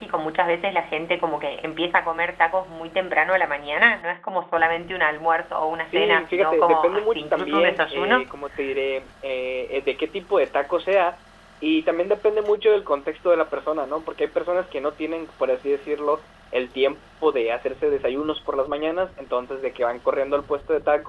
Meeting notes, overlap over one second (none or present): present